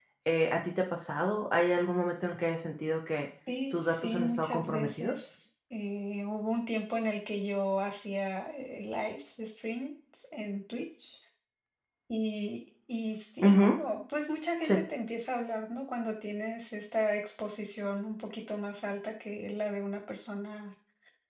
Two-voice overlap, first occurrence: 3.7 s

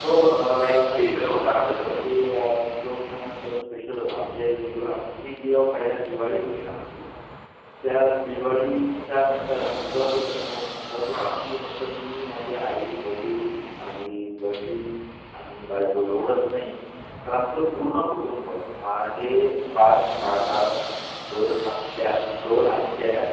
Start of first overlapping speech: 0.6 s

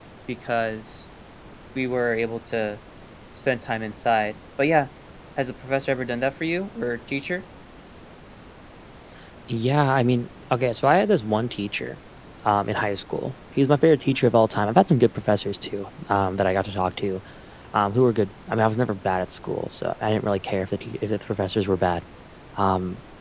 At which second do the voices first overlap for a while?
none

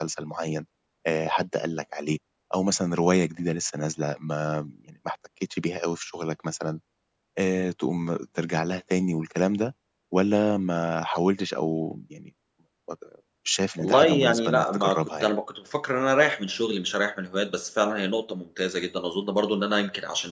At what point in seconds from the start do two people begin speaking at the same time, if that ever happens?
13.8 s

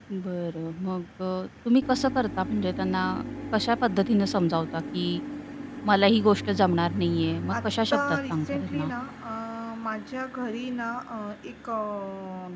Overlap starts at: 7.6 s

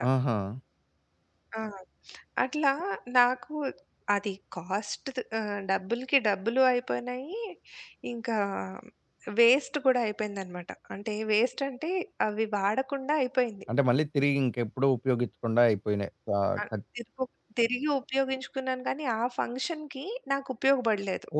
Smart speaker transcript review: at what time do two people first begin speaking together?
none

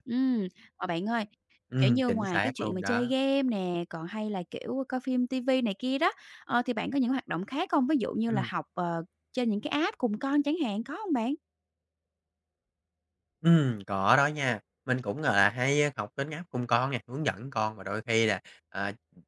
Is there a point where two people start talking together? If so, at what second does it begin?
1.8 s

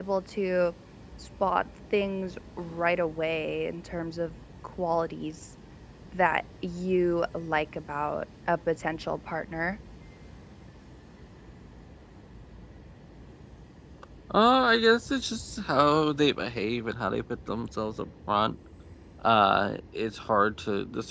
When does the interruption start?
none

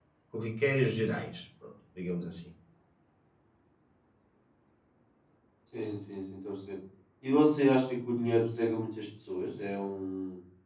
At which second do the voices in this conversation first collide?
none

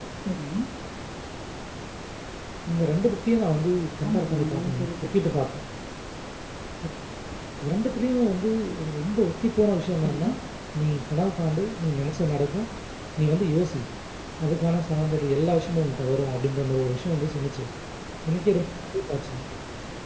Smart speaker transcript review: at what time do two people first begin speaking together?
4.1 s

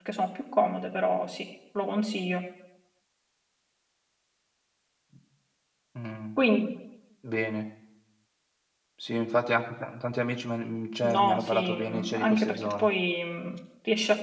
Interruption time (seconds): 11.0 s

